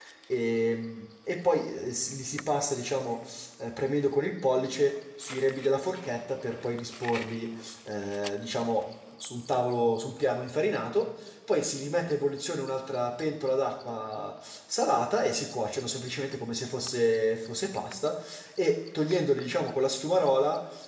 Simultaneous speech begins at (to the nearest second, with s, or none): none